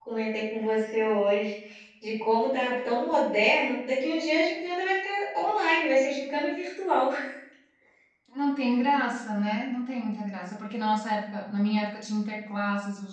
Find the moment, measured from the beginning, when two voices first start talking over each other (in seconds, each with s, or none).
none